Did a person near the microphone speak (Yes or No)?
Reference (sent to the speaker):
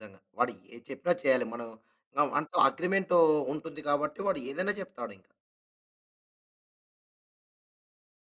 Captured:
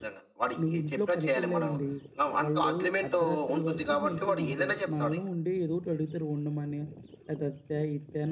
Yes